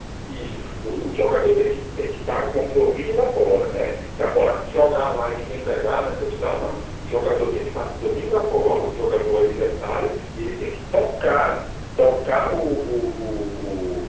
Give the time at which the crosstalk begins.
none

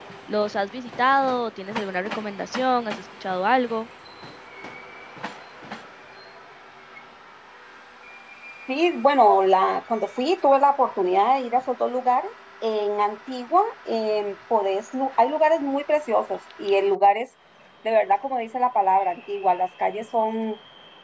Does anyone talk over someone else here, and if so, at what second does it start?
none

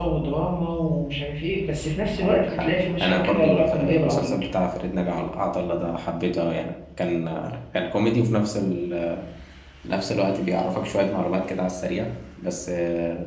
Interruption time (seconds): 2.2 s

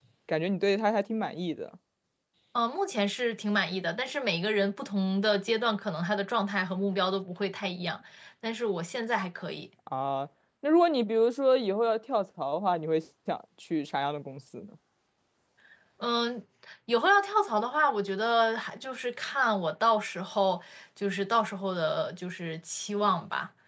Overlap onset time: none

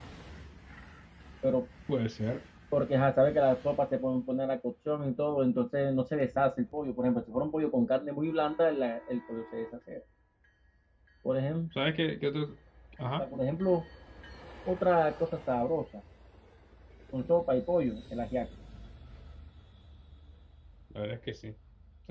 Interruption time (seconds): none

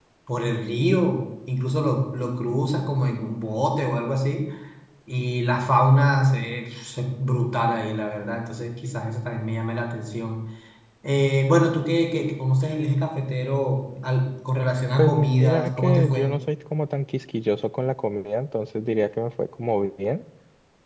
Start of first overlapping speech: 15.0 s

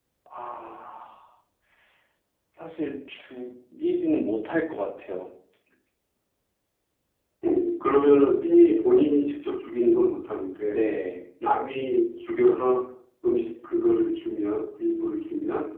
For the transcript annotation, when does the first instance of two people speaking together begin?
none

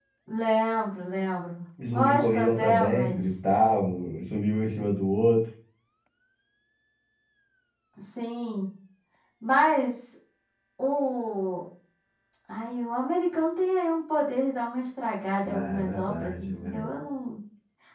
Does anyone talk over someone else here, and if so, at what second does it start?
1.9 s

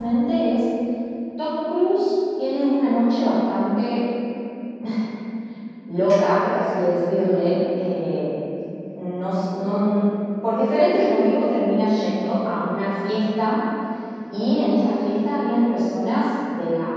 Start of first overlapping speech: none

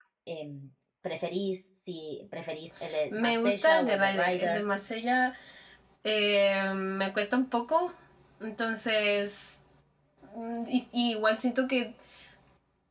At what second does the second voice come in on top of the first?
3.1 s

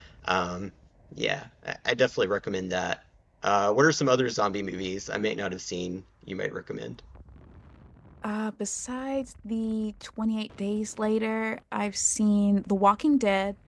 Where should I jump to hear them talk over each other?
none

